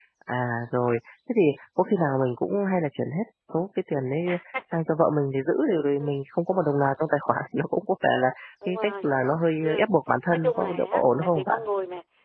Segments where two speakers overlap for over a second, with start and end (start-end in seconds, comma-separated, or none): 10.3-11.6